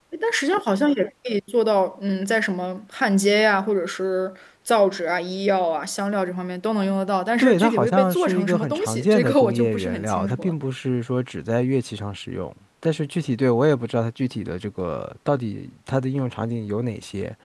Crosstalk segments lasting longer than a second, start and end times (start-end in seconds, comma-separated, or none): 7.4-10.5